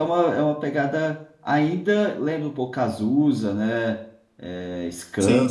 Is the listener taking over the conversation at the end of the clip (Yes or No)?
No